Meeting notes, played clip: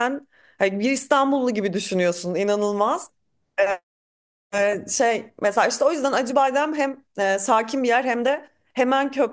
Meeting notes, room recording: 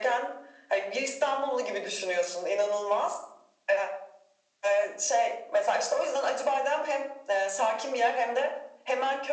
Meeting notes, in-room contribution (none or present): none